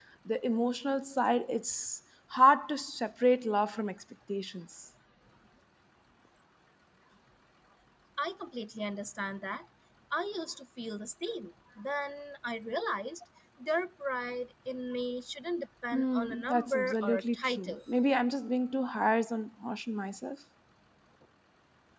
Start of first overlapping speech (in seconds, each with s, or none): 15.9 s